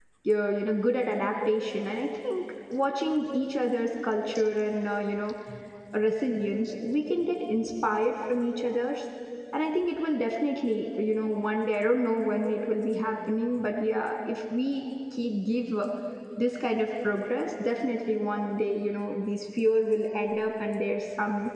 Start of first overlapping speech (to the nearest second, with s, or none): none